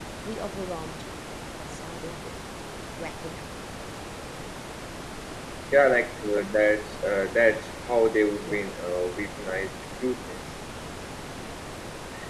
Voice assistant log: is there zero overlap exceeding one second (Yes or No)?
Yes